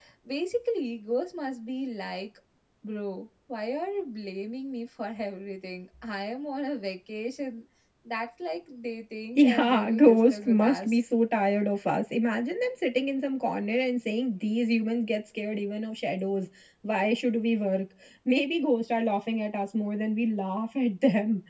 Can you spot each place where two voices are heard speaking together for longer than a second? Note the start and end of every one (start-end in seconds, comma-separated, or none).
9.4-11.0